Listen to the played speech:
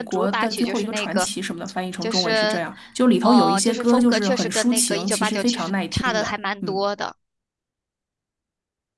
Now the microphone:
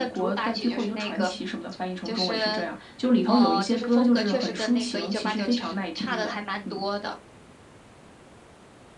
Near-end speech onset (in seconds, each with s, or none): none